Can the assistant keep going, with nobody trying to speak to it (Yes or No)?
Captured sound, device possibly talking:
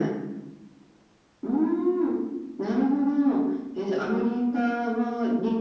Yes